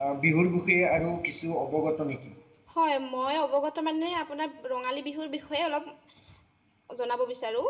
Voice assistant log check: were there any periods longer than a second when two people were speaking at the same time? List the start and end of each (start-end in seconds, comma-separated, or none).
none